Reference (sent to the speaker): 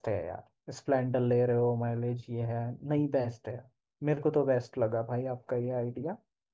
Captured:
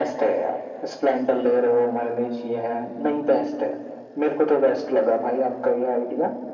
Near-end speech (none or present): none